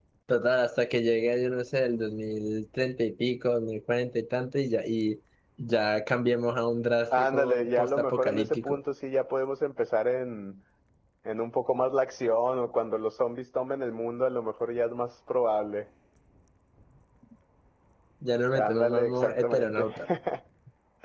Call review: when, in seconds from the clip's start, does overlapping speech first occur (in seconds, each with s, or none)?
7.1 s